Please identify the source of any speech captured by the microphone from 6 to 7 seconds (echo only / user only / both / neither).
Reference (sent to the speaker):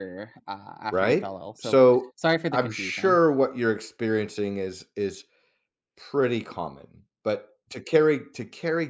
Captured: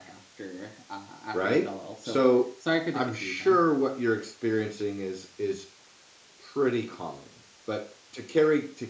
echo only